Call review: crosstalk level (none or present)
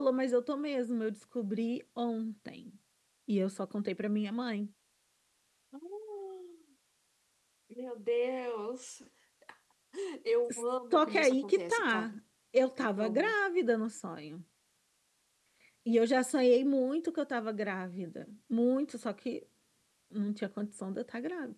present